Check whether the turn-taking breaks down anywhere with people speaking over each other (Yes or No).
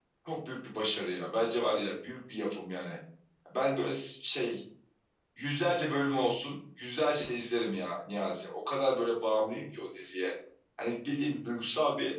No